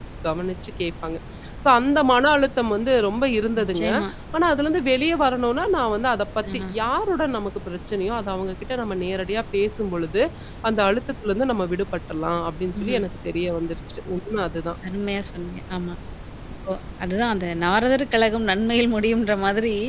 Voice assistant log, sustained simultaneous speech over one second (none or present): none